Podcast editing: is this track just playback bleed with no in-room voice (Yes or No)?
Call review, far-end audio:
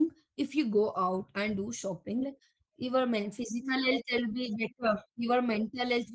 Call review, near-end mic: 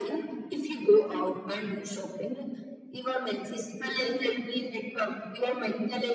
Yes